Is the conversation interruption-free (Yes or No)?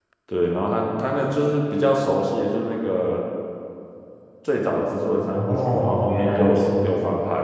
No